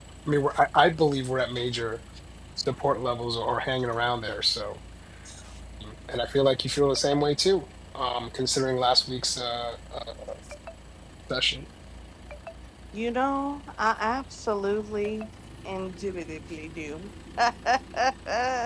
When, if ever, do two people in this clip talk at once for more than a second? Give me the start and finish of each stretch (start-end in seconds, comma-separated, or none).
none